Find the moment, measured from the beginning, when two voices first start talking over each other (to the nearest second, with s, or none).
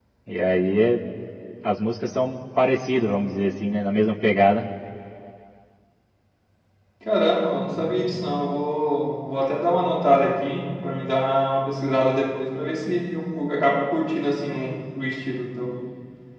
none